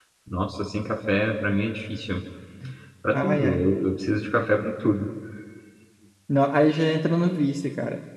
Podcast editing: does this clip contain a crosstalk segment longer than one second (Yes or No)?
No